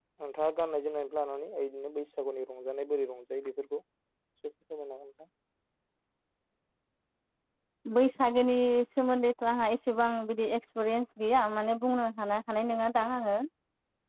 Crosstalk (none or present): none